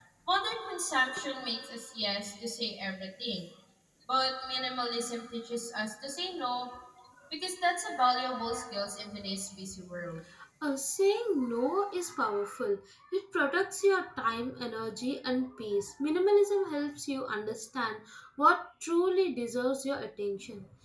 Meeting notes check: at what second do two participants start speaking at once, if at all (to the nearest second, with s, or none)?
none